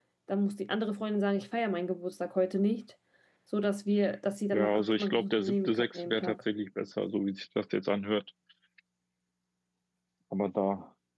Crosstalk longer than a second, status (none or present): present